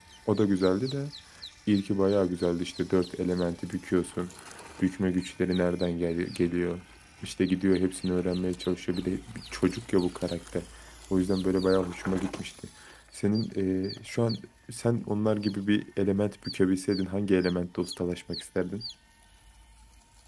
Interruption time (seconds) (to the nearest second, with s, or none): none